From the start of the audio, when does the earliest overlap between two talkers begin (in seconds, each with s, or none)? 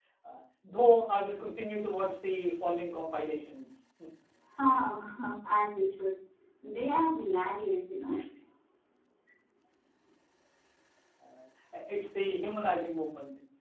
none